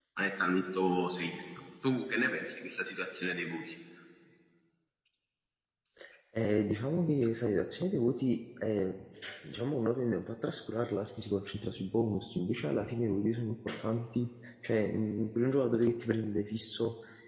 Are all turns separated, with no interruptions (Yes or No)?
Yes